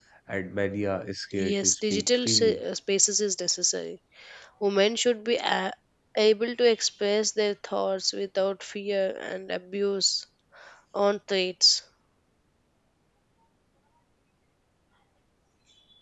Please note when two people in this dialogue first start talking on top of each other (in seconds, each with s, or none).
1.3 s